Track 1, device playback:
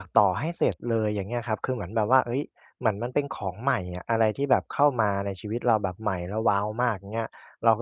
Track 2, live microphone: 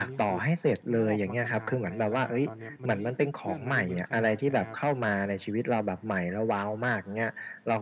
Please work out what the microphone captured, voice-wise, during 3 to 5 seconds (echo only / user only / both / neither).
both